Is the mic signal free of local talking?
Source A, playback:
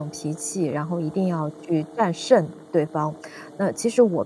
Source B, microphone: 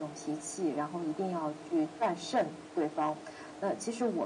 Yes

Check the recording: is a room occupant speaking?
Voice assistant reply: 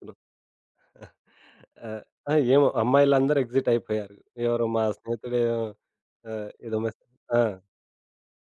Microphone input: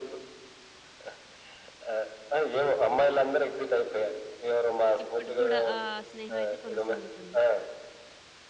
Yes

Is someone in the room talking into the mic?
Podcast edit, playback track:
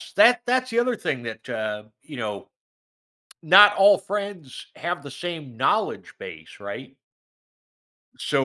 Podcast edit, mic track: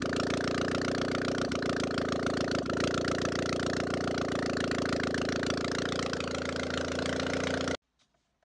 No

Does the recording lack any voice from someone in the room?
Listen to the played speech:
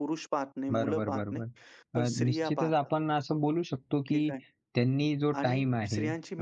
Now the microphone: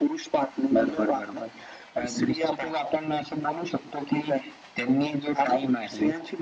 Yes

